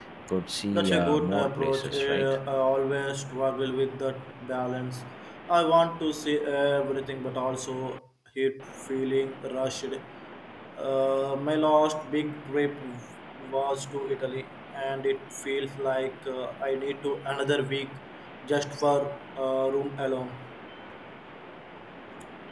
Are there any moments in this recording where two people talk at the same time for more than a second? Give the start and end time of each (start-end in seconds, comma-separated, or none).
0.7-2.2